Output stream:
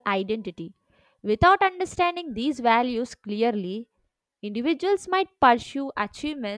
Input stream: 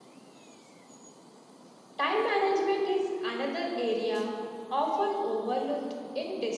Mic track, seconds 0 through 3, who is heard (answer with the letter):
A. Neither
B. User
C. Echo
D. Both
B